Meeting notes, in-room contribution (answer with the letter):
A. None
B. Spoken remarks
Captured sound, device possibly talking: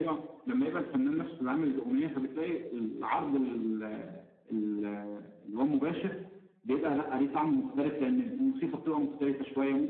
A